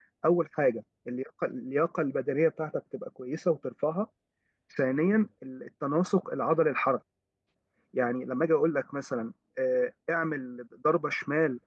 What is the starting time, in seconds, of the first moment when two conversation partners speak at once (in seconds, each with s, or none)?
none